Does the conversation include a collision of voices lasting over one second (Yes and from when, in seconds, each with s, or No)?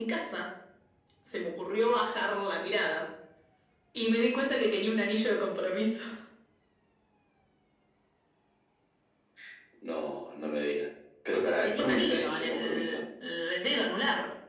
Yes, from 11.6 s